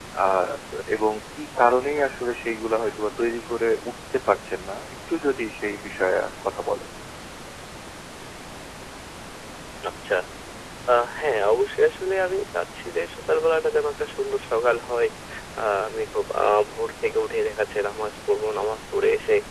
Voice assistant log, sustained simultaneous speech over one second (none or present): none